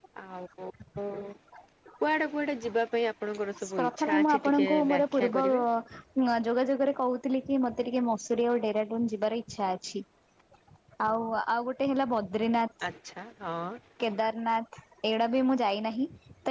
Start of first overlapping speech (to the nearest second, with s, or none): 4 s